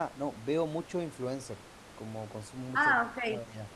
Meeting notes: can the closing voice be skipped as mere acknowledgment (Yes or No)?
Yes